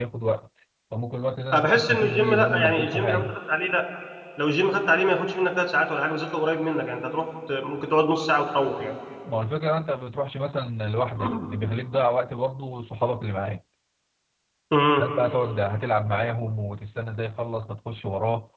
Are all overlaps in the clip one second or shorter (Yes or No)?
No